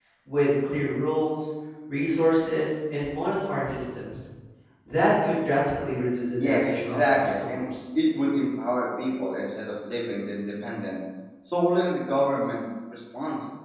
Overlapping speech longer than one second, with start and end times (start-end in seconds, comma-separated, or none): 6.4-7.6